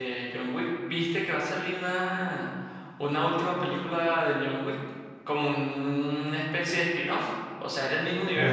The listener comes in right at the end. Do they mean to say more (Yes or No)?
Yes